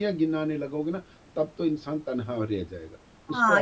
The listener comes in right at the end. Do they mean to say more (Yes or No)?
Yes